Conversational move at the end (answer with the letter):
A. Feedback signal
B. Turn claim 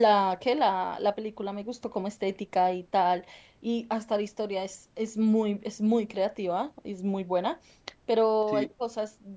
A